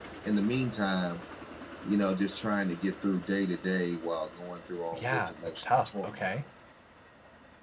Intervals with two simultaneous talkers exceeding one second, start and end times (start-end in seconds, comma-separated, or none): 4.9-6.4